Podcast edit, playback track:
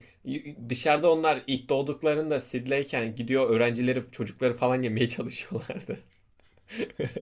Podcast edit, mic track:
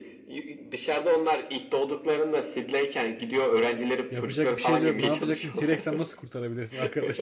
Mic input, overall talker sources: both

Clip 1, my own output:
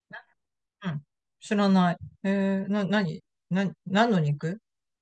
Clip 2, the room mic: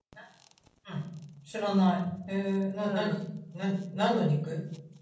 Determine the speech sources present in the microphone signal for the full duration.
both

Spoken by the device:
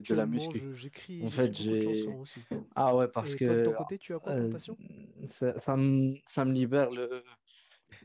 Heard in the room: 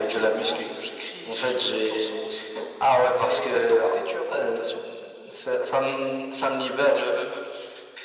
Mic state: echo only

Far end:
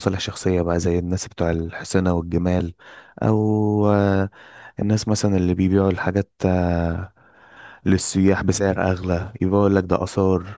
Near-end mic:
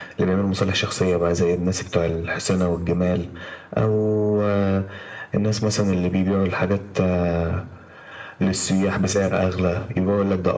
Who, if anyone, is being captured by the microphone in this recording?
echo only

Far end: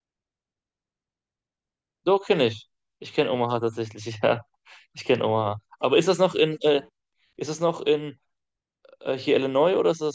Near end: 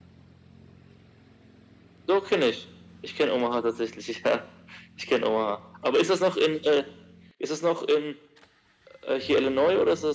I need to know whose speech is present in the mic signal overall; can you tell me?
echo only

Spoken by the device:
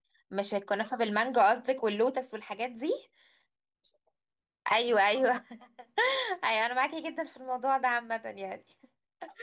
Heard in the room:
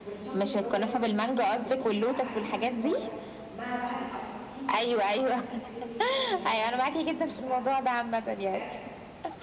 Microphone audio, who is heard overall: both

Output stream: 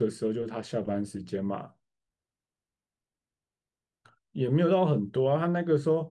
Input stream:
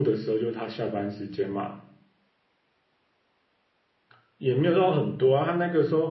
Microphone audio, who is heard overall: echo only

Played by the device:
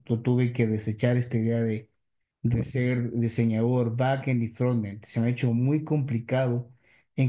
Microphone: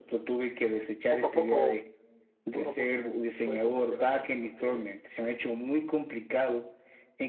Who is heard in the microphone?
both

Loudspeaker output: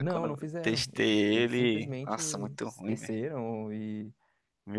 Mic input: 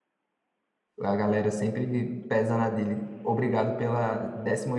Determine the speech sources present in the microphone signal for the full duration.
user only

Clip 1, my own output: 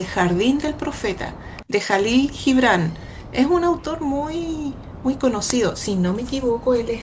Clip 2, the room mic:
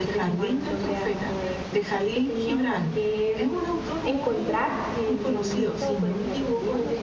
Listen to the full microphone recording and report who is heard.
both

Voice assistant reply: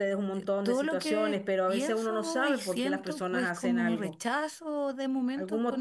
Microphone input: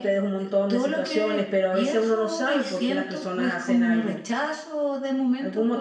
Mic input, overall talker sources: echo only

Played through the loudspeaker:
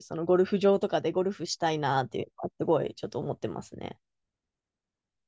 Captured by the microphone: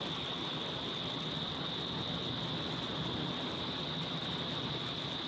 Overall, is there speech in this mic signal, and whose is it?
neither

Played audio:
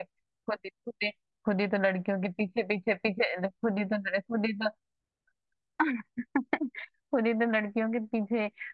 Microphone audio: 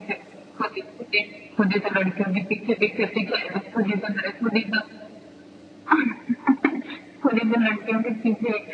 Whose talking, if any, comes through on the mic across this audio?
echo only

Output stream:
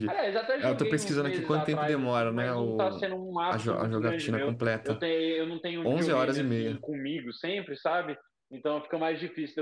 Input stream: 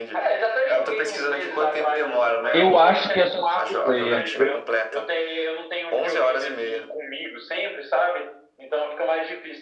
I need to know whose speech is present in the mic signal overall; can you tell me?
both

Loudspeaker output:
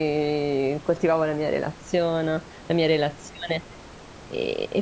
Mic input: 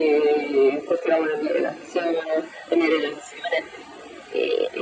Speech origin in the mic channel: echo only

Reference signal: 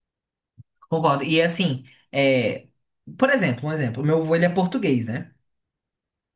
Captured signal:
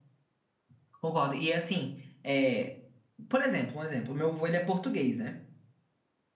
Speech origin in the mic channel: echo only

